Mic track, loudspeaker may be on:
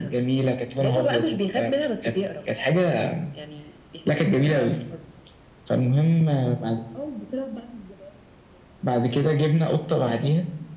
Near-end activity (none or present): none